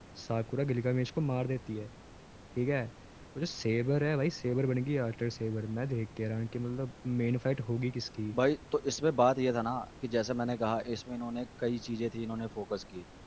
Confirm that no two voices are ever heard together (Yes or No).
Yes